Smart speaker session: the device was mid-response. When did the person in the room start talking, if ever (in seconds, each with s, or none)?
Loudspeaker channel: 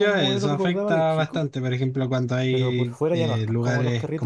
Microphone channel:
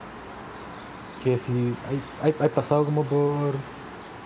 1.2 s